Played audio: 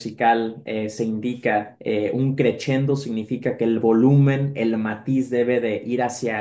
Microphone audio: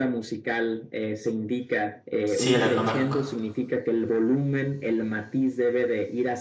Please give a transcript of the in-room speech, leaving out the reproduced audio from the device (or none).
sí la conozco.